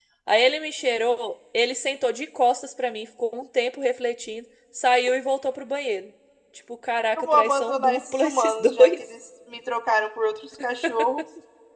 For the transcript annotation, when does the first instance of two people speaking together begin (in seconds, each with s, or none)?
7.3 s